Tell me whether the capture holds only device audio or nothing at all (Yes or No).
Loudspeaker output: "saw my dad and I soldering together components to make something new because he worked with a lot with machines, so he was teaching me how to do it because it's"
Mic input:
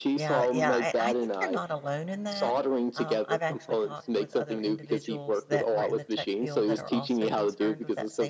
No